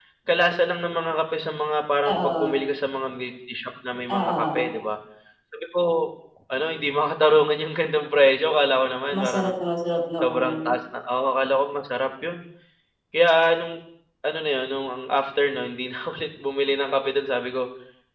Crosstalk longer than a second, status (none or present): none